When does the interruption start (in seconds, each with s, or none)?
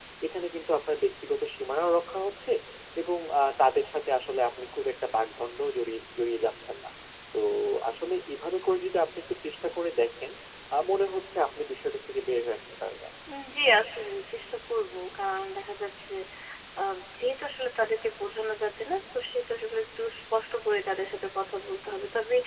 none